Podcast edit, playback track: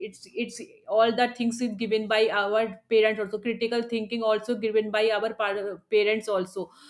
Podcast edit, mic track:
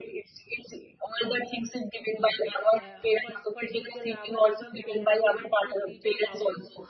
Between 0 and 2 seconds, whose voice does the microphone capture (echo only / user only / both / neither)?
echo only